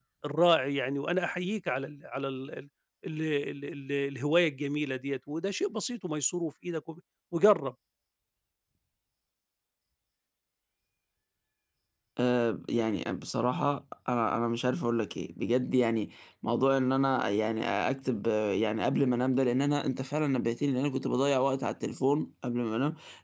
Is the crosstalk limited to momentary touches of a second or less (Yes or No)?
Yes